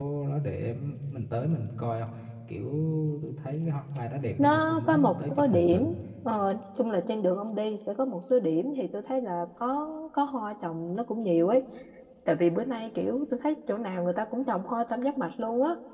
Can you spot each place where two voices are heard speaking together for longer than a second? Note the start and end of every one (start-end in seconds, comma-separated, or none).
4.4-5.9